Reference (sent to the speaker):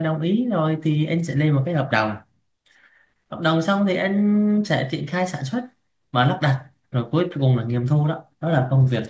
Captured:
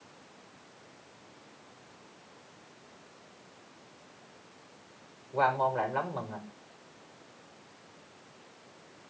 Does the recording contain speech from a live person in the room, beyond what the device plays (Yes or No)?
Yes